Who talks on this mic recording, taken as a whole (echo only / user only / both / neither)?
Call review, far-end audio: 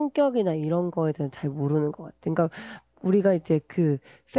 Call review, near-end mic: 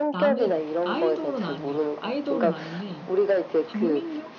both